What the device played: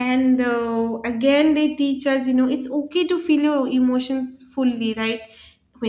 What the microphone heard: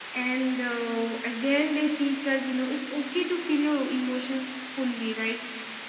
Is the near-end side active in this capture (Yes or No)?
No